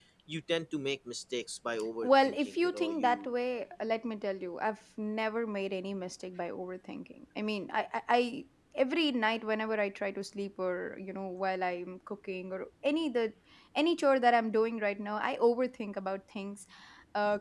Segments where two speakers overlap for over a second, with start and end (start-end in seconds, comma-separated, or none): 2.0-3.3